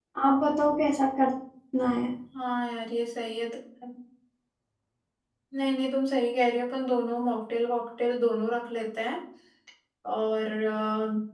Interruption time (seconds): none

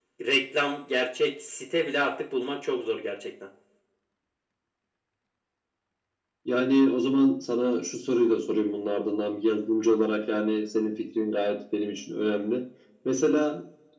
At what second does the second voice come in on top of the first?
none

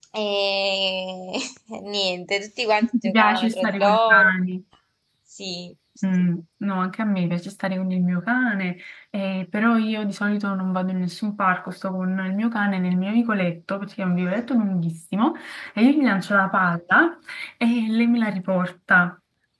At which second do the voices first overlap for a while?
3 s

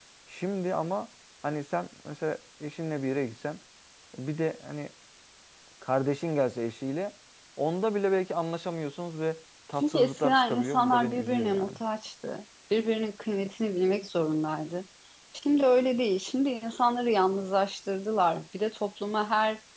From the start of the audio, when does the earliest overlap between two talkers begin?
10 s

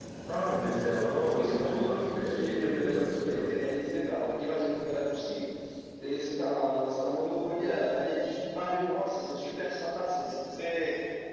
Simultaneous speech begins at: 1 s

